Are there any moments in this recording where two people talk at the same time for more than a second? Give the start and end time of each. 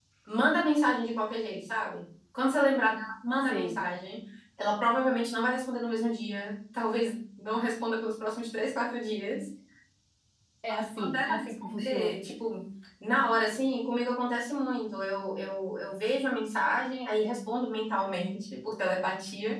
10.7-12.2

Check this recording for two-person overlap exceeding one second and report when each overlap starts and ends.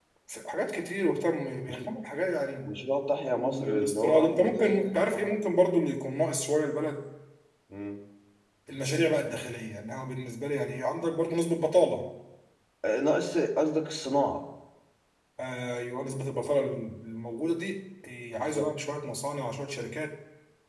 3.4-5.4

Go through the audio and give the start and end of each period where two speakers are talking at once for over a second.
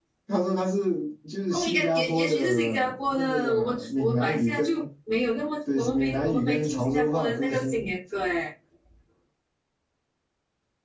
1.5-4.8, 5.8-7.8

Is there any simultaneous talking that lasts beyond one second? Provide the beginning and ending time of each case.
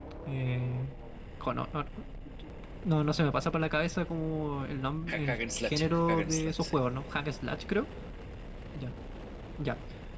5.1-6.7

